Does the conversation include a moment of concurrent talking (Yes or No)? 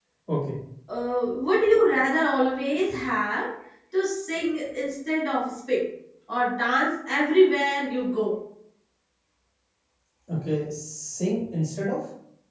No